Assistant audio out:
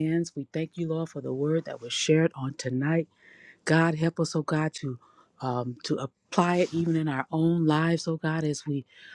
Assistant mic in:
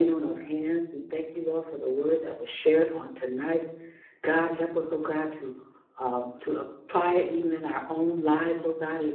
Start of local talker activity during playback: none

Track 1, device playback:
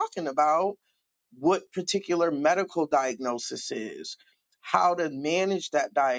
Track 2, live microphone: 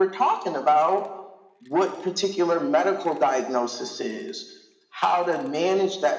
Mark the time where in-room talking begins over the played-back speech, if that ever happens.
none

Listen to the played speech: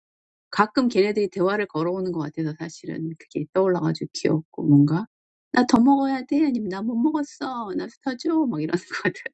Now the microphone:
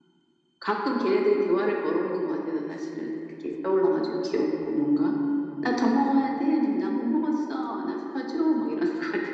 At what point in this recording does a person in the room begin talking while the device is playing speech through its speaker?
none

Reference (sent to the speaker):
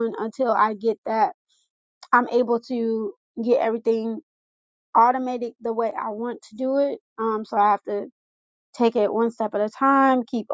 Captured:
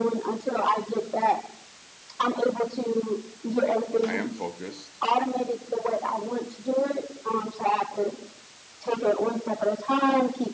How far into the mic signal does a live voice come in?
4.0 s

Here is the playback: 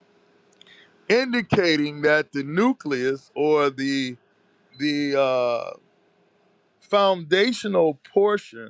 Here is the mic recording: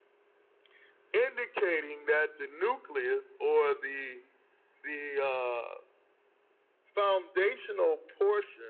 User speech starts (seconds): none

